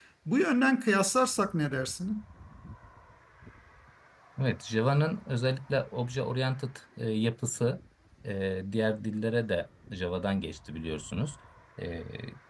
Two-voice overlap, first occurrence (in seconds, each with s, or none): none